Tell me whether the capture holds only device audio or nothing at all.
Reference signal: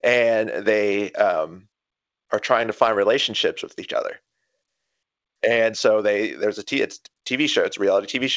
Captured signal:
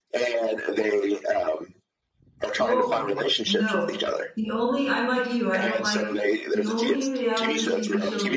No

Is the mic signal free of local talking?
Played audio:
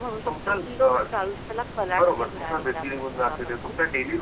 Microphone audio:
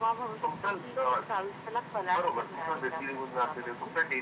Yes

